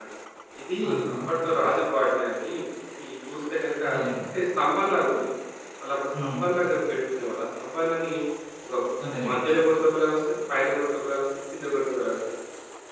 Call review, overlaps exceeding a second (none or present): none